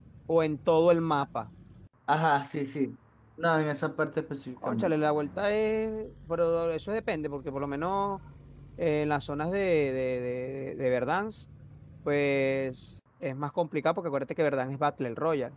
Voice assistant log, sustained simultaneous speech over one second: none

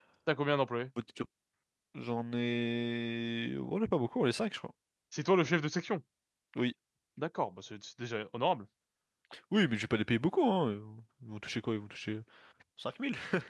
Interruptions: none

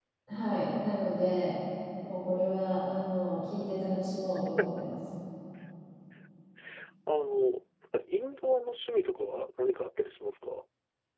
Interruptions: none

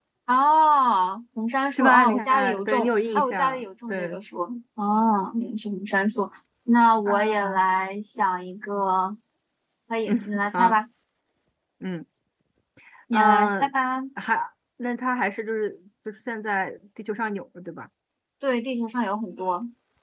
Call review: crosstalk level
present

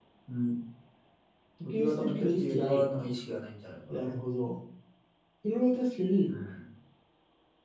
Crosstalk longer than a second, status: present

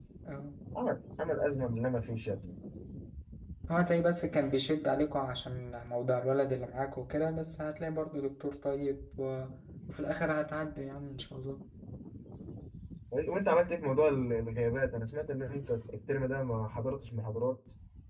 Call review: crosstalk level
none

